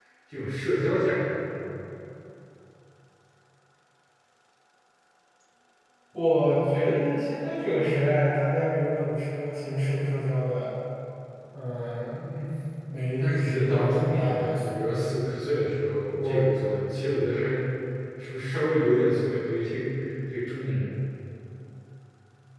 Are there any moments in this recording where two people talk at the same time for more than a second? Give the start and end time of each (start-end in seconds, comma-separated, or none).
13.2-15.2